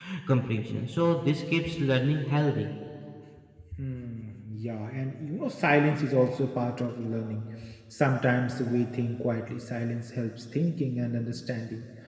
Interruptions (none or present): none